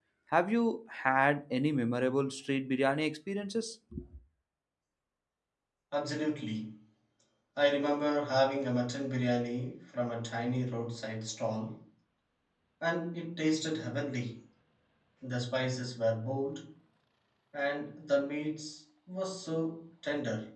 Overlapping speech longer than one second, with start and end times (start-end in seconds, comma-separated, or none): none